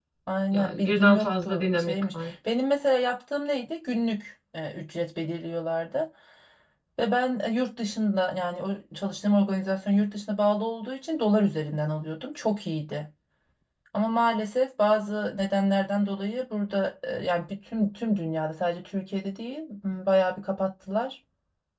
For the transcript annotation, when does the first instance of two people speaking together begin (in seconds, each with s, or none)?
0.5 s